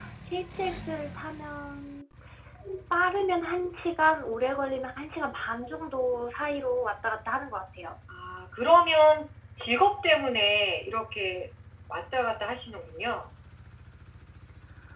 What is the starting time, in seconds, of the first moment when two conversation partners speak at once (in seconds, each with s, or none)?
none